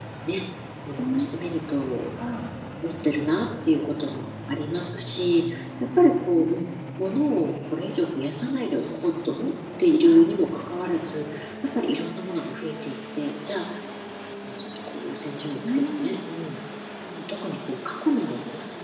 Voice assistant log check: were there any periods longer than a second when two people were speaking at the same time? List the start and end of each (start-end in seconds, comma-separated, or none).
none